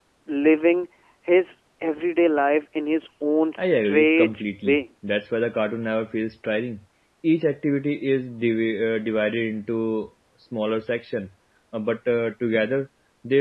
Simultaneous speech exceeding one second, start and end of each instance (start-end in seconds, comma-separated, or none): 3.6-4.8